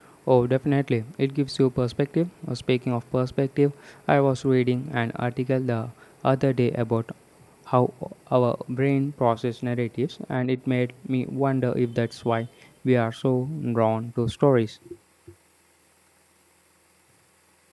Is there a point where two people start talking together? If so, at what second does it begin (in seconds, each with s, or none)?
none